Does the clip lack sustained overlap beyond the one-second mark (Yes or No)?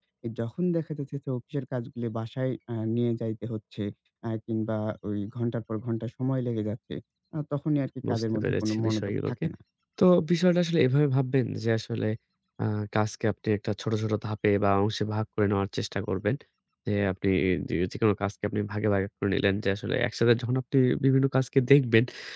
No